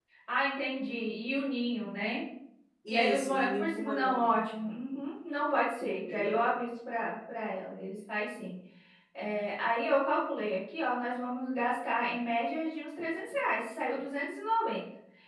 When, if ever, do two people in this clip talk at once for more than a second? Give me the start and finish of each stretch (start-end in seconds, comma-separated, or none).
2.9-4.3